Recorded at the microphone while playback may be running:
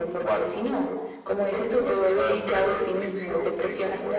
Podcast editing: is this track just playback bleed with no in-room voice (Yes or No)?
Yes